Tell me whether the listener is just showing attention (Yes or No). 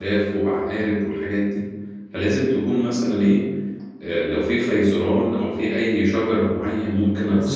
No